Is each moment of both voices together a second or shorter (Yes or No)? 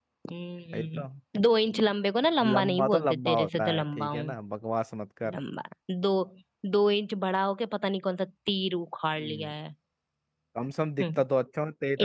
No